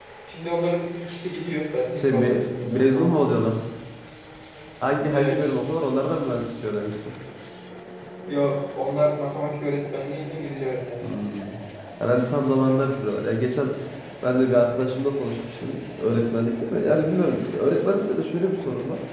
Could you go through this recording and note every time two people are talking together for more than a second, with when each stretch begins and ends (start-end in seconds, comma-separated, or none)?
2.0-3.3